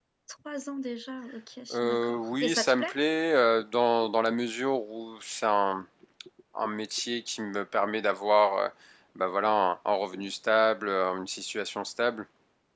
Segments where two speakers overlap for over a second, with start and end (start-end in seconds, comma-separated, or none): 1.7-2.9